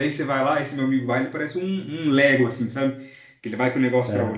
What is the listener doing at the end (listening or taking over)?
listening